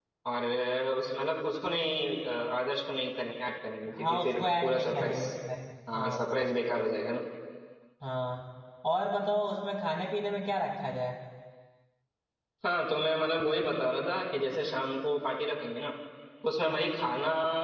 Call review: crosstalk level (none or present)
present